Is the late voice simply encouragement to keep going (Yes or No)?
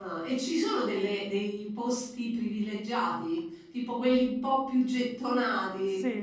No